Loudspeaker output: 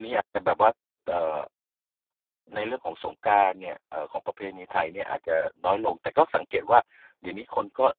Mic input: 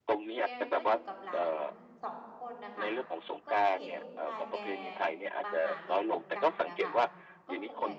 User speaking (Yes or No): Yes